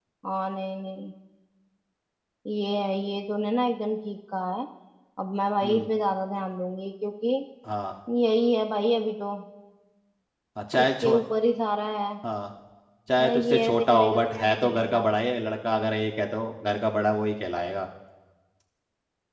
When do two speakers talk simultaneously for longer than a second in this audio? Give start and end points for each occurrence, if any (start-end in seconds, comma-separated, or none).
13.2-15.1